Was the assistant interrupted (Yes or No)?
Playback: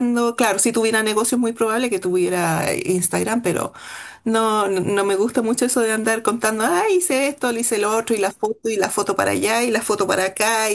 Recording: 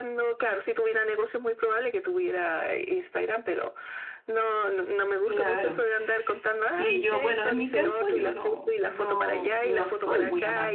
Yes